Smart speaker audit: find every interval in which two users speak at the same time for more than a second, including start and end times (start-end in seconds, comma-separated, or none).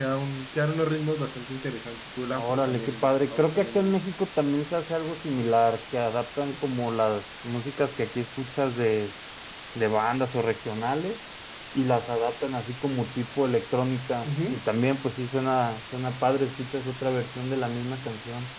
2.3-4.0